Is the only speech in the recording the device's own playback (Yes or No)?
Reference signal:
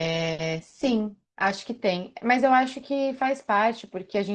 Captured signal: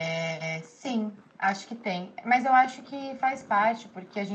Yes